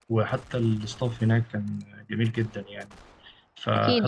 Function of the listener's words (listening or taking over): taking over